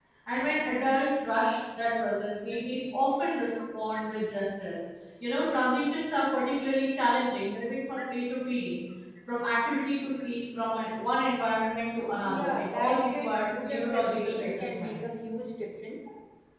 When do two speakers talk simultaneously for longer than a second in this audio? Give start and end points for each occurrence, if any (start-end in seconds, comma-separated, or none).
12.2-15.0